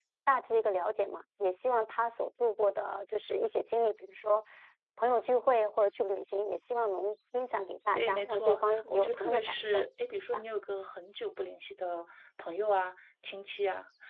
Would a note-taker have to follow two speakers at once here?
Yes, from 8.0 s

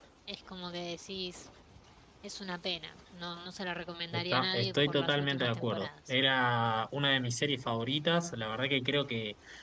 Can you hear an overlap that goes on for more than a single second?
Yes, from 4.1 s

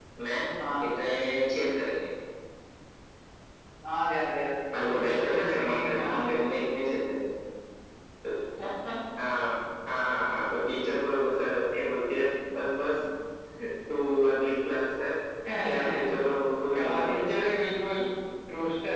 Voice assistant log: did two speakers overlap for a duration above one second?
Yes, from 4.7 s

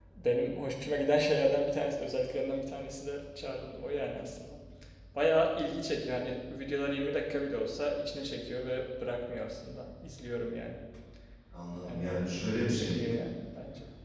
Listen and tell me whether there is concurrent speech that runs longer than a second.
No

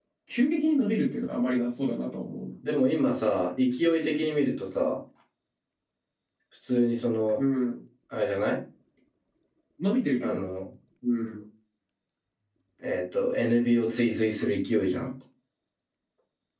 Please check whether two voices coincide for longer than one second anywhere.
No

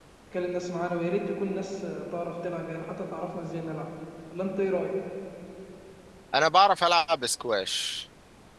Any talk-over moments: No

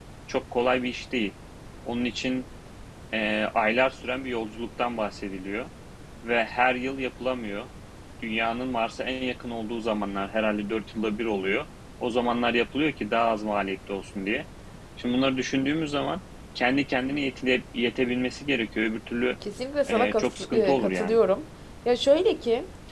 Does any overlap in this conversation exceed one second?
Yes, from 19.9 s

